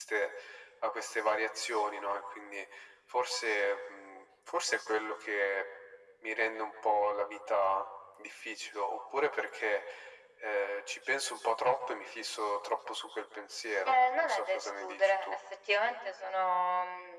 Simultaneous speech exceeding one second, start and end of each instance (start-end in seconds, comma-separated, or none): 13.8-15.4